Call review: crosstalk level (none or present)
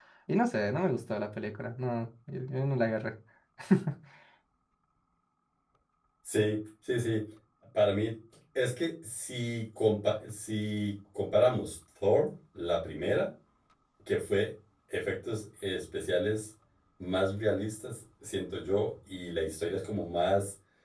none